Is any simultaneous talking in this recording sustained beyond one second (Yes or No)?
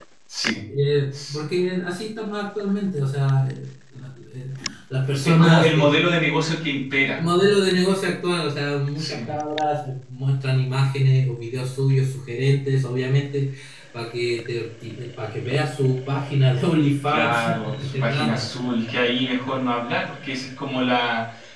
Yes